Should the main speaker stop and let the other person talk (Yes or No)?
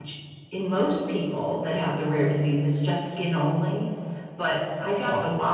No